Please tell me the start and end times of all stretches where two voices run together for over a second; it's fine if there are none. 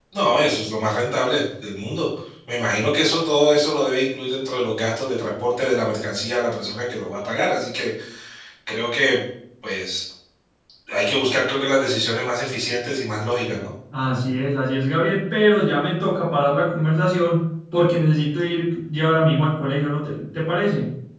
none

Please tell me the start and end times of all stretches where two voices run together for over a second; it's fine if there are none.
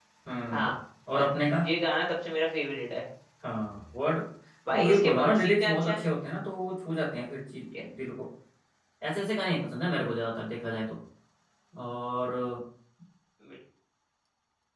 4.7-6.0

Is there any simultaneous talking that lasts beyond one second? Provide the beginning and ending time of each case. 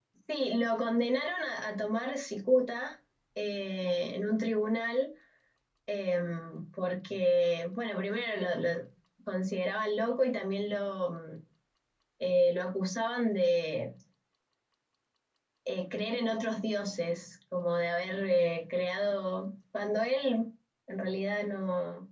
none

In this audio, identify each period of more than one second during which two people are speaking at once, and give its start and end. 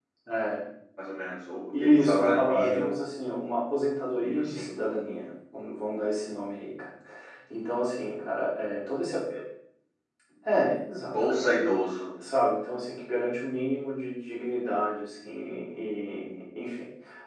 1.8-3.0

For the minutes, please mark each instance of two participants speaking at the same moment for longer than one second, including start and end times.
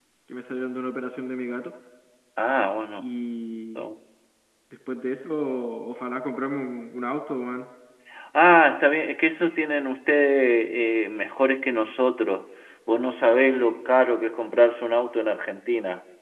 none

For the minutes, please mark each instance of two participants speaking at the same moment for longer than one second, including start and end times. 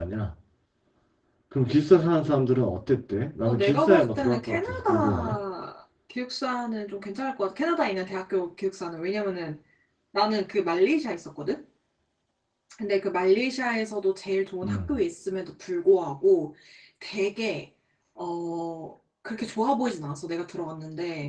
3.5-5.4

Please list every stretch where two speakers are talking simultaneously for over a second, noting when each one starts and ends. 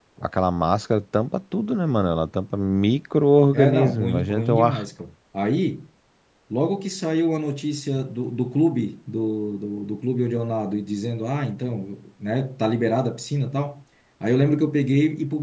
3.5-4.8

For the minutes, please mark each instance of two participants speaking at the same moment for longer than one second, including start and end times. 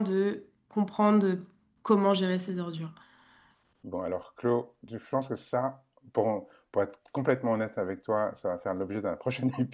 none

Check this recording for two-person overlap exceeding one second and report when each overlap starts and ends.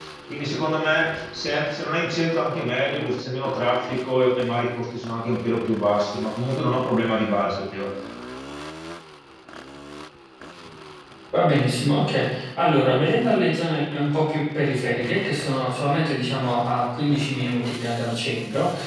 none

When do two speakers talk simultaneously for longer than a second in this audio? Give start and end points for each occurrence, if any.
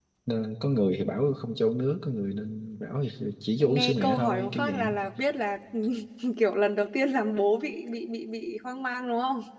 3.6-4.9

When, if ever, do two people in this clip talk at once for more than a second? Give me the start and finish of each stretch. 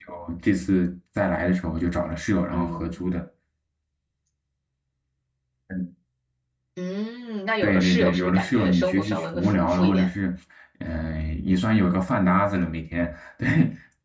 7.6-10.1

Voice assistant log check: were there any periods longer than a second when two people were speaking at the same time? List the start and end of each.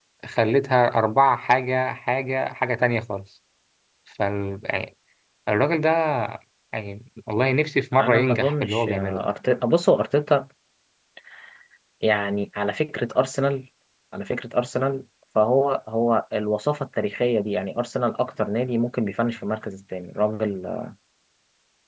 8.0-9.3

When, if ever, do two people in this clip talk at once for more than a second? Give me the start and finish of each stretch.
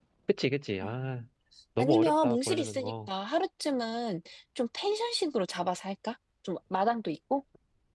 1.8-3.1

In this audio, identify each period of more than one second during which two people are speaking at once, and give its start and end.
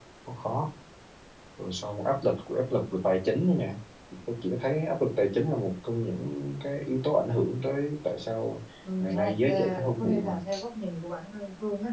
9.0-10.3

